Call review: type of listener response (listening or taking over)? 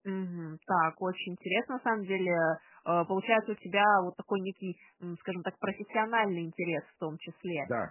listening